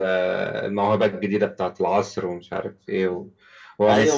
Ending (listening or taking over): taking over